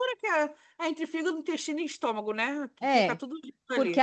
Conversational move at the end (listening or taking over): taking over